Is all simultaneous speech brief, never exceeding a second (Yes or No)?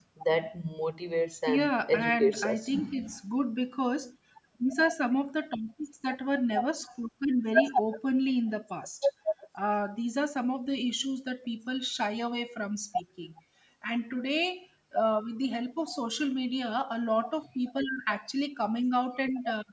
No